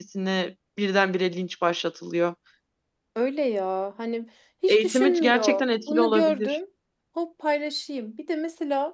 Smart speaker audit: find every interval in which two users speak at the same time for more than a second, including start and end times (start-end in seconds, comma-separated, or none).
4.7-6.6